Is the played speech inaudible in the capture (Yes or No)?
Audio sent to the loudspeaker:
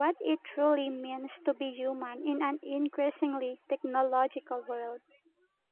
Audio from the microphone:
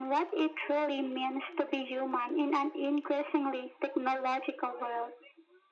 No